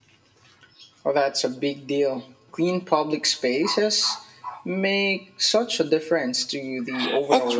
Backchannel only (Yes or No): No